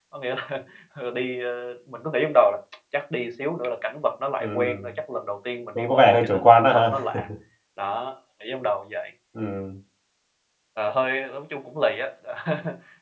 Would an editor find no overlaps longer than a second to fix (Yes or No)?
No